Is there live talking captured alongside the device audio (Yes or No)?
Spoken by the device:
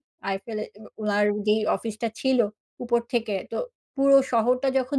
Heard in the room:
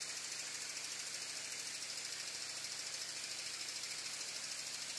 No